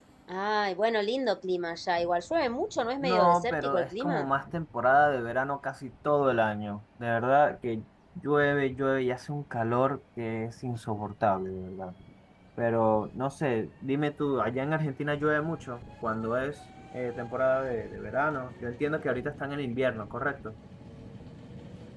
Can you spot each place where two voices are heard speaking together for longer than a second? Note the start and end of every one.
3.0-4.3

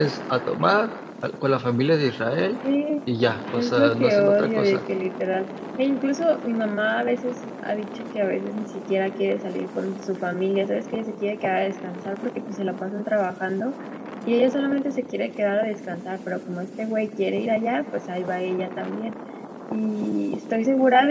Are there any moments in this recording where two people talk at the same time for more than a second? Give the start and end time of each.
3.5-4.8

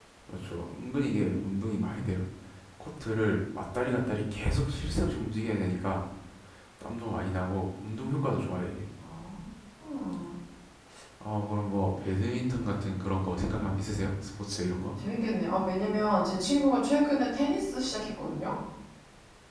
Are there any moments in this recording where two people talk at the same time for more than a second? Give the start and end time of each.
none

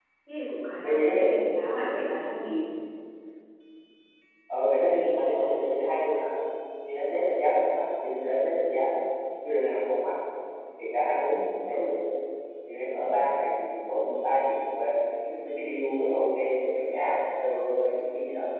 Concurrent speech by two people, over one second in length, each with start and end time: 0.8-2.1

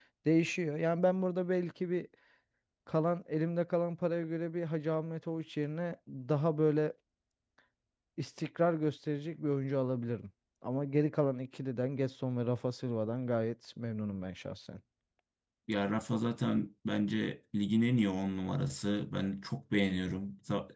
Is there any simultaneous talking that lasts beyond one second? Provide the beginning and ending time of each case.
none

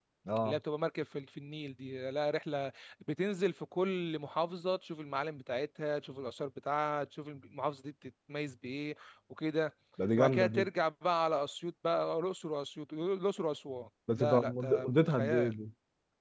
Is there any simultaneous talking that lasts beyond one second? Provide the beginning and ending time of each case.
14.2-15.5

